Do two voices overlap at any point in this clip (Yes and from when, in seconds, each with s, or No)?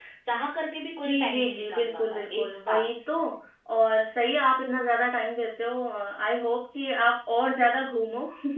Yes, from 1.0 s